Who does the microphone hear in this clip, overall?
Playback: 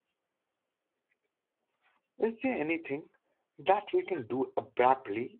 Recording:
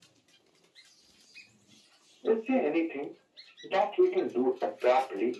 echo only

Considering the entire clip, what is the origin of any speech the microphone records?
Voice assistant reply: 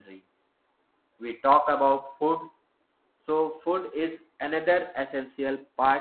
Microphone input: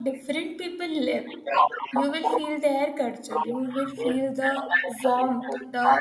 both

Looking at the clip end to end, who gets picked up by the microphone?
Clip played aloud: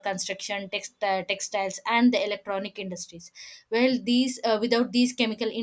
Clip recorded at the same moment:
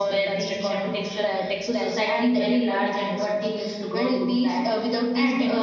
both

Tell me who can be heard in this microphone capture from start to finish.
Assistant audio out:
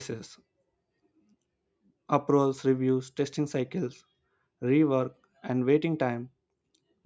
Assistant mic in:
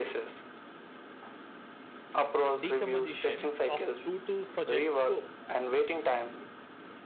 both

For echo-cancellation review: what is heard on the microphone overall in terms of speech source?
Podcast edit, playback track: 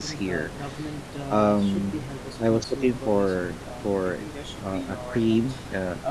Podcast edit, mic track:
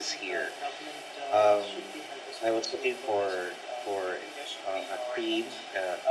echo only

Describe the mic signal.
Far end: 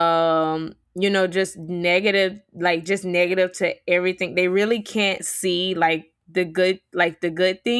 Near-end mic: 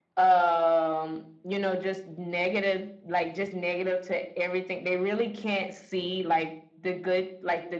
echo only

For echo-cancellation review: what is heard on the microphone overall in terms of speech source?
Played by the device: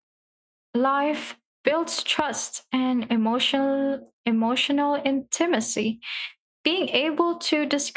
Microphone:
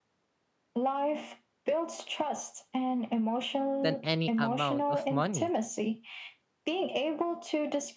both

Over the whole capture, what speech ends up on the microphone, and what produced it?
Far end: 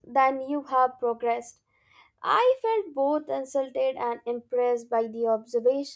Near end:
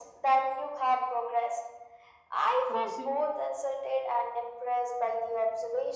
both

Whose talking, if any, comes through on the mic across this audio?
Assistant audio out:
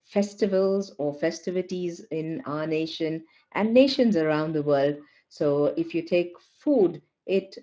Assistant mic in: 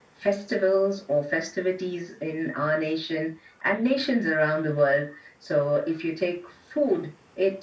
echo only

